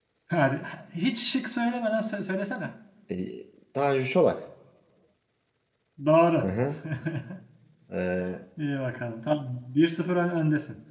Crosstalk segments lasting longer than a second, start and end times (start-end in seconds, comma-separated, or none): none